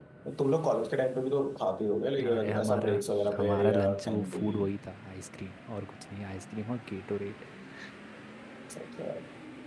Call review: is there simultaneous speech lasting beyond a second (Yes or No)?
Yes